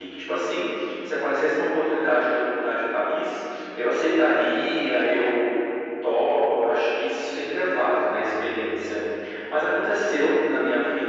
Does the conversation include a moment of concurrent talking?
No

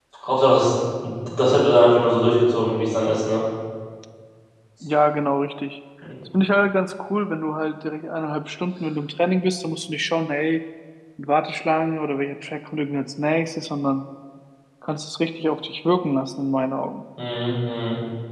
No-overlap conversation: Yes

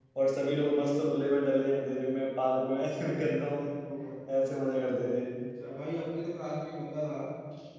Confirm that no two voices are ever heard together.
Yes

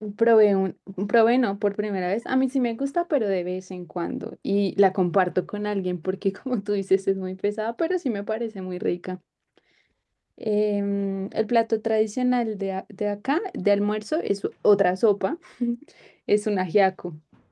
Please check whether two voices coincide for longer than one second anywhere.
No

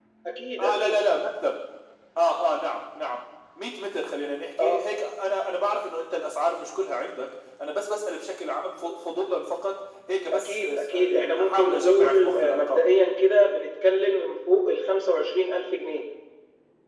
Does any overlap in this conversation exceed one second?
Yes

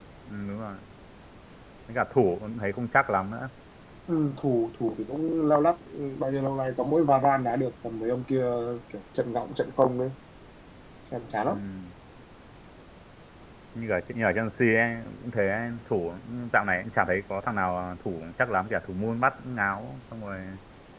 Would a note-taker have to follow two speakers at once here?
No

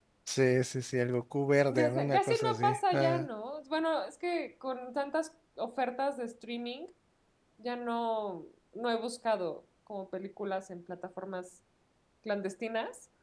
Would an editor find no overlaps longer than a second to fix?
No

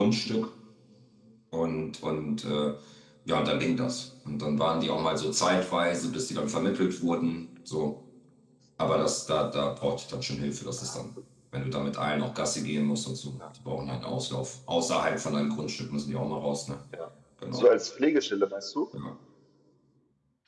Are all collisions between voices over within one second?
Yes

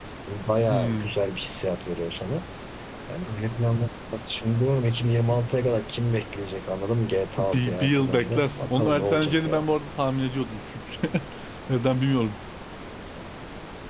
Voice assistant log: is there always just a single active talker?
No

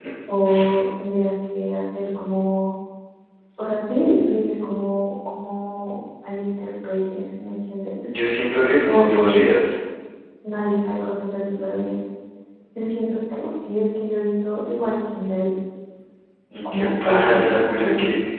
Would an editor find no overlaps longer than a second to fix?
No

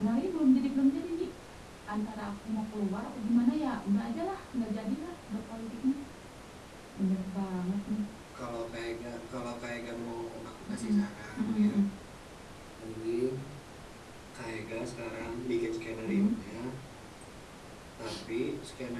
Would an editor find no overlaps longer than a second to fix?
Yes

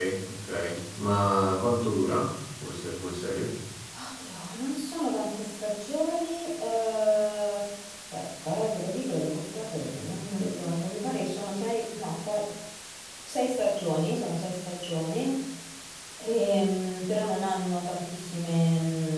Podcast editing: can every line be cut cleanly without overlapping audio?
Yes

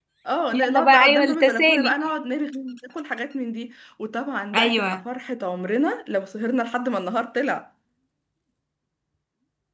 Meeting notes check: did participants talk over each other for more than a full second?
Yes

